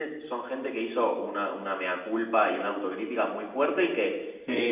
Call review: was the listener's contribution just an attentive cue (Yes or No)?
Yes